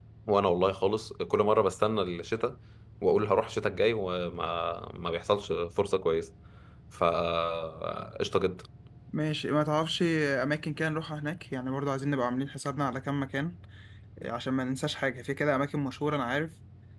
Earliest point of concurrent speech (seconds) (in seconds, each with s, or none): none